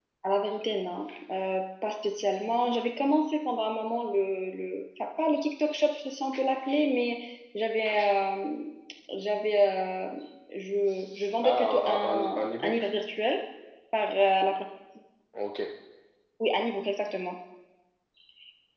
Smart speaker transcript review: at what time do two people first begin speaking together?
11.4 s

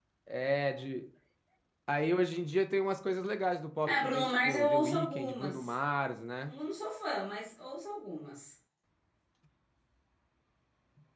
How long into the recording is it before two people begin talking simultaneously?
3.8 s

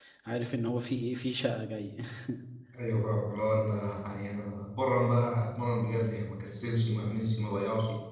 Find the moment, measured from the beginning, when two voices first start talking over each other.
none

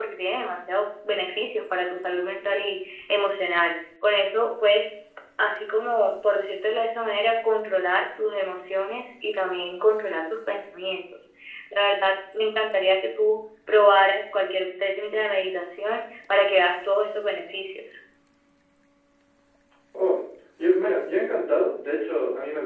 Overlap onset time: none

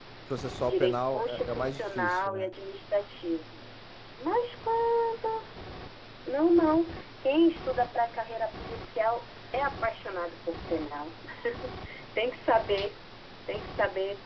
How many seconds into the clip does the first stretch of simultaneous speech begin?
0.7 s

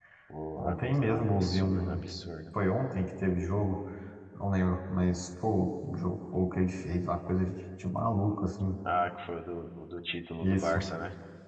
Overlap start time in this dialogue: 0.6 s

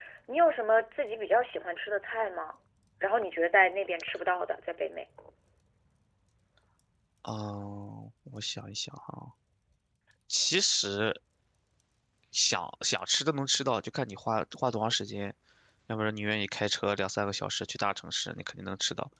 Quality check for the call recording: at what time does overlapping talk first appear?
none

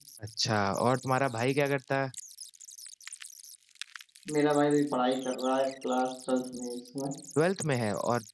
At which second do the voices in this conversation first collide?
none

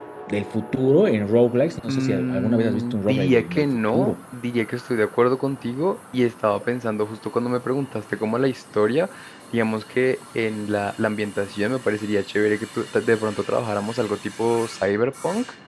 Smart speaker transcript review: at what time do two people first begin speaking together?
1.9 s

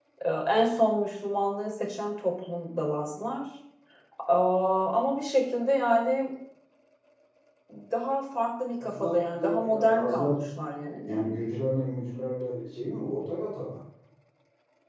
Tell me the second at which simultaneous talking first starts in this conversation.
8.8 s

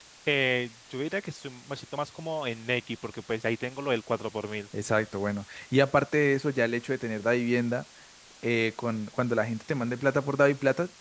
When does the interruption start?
none

